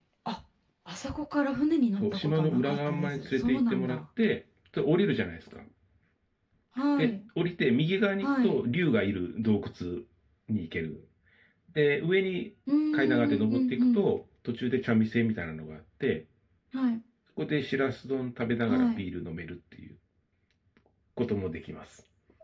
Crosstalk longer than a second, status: present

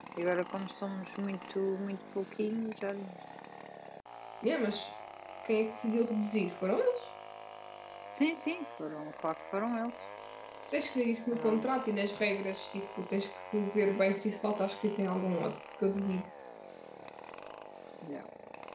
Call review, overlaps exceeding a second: none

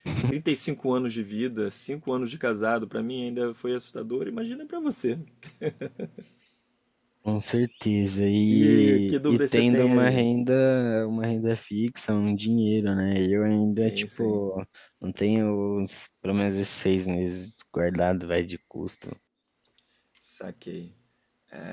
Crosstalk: present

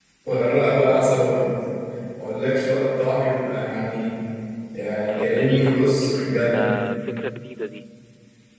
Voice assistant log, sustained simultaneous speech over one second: present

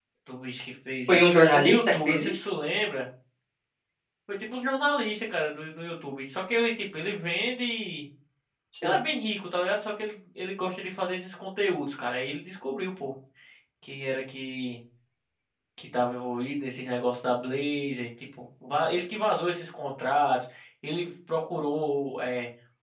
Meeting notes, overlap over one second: present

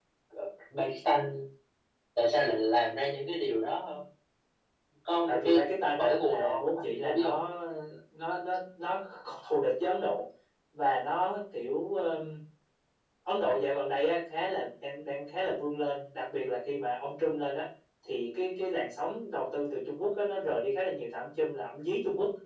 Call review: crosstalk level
present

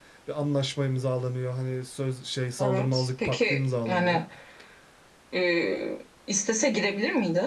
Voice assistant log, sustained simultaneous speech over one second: present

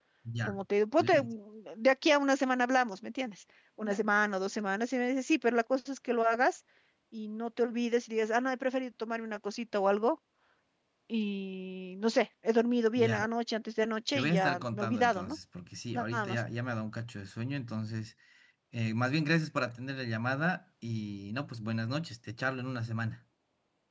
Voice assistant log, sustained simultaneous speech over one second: present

